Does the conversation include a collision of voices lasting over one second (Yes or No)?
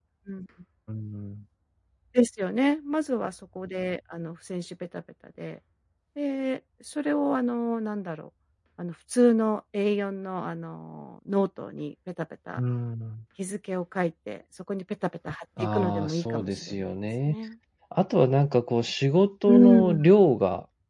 Yes